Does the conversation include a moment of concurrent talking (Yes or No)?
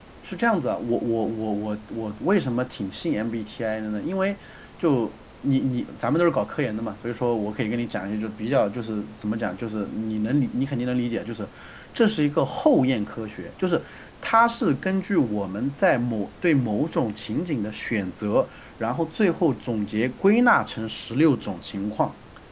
No